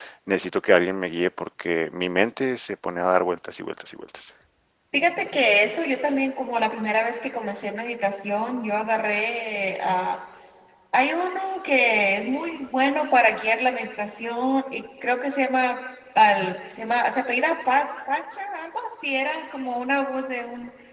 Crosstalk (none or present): none